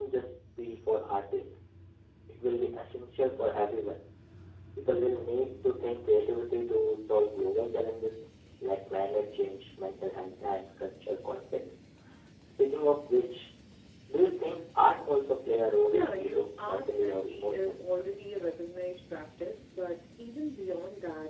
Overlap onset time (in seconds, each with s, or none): 15.9 s